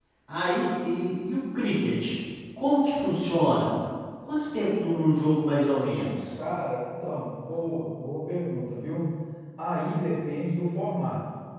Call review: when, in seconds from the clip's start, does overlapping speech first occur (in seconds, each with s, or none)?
none